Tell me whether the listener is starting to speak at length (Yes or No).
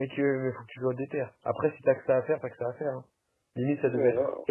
Yes